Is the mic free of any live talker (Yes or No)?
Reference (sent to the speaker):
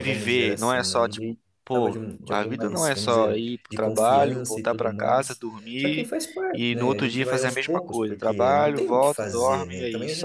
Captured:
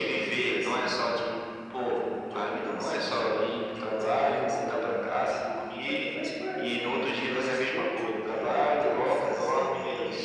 Yes